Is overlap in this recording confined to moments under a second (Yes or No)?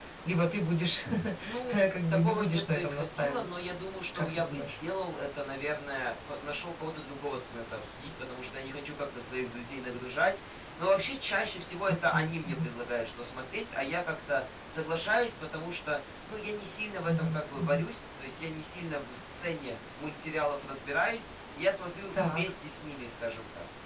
No